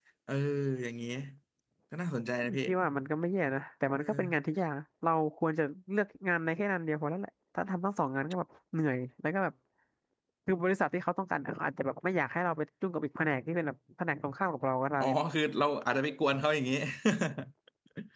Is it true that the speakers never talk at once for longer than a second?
Yes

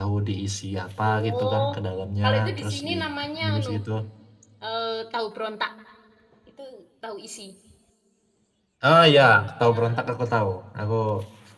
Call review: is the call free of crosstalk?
No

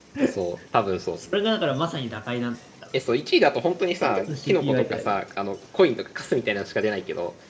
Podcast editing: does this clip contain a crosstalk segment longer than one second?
Yes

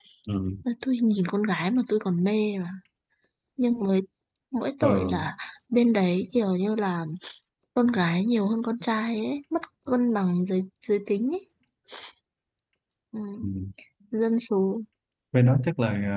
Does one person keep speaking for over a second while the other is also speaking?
No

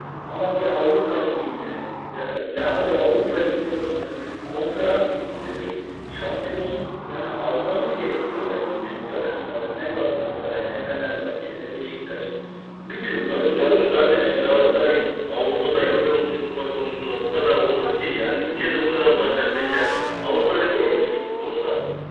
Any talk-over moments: Yes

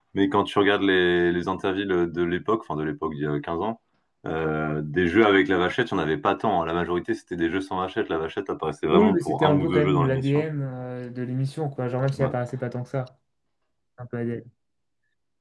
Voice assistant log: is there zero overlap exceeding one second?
No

